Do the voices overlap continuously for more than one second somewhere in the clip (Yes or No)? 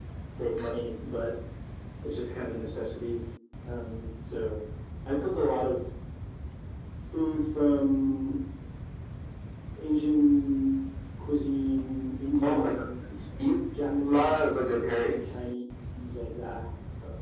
Yes